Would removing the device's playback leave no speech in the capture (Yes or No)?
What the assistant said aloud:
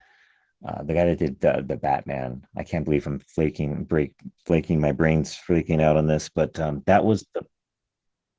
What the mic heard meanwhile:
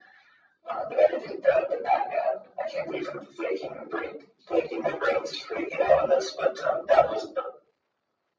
Yes